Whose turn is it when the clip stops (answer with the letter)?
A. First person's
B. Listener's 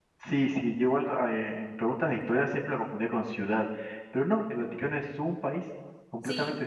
B